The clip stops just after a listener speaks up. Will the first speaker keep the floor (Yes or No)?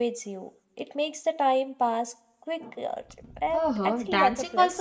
No